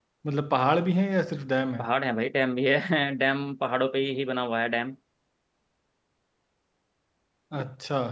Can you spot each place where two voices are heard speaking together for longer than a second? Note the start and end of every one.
none

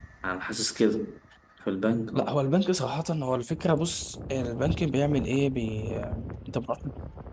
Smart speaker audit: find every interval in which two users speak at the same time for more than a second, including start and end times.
none

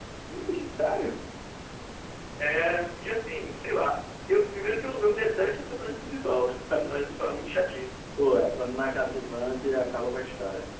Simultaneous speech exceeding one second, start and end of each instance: none

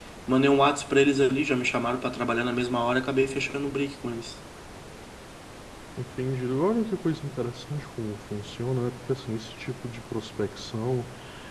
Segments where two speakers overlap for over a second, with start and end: none

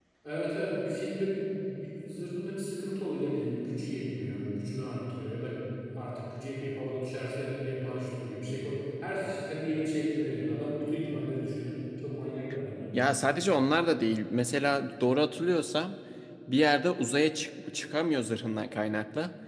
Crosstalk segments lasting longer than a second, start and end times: none

